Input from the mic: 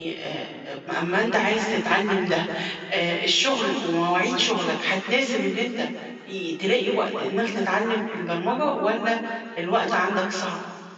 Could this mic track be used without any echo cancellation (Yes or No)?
Yes